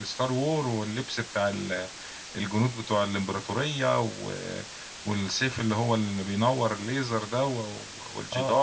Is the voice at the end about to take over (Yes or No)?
Yes